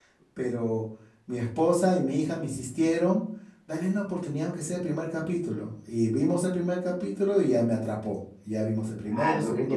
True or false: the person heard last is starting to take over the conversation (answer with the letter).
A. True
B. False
A